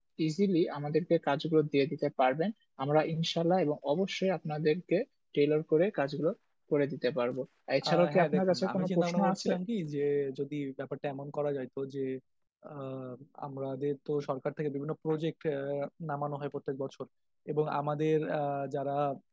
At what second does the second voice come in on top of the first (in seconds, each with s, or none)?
7.9 s